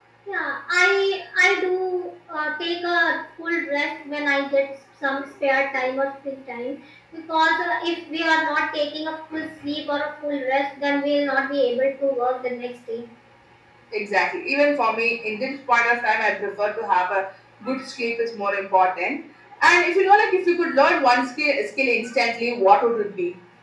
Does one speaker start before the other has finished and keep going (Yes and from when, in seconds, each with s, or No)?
No